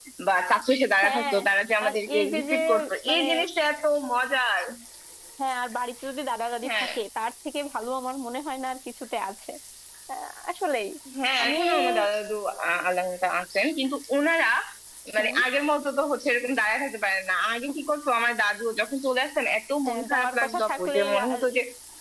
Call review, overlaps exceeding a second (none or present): present